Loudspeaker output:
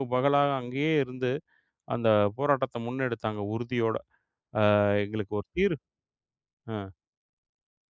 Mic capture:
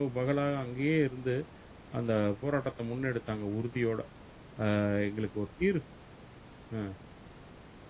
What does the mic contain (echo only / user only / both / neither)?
echo only